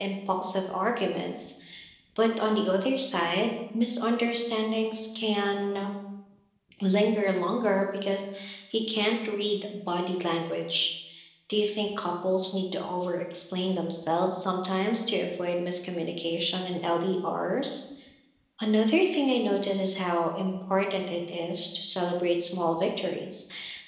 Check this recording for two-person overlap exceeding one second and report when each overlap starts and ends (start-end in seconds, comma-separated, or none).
none